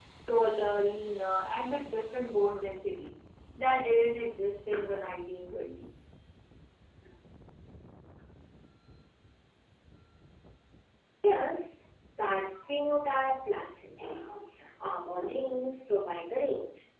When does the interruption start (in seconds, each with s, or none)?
none